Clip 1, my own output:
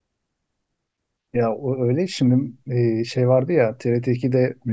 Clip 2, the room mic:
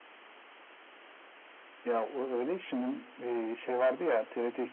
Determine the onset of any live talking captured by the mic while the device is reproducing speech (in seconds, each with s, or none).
none